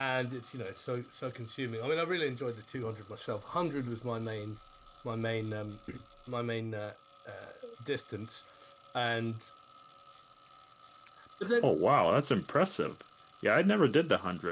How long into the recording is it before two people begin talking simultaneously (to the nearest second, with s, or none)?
none